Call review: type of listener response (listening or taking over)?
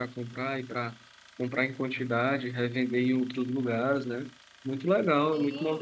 taking over